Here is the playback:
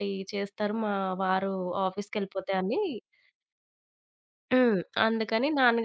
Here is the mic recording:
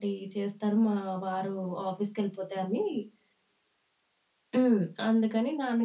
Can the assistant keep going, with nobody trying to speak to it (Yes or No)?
Yes